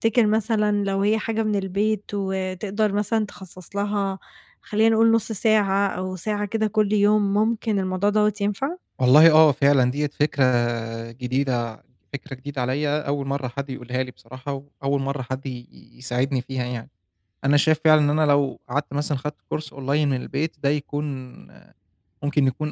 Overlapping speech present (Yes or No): No